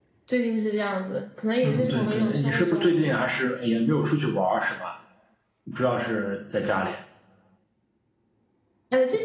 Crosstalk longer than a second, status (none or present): present